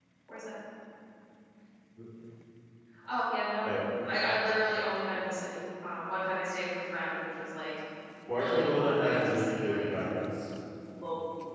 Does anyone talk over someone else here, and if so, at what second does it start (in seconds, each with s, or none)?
8.3 s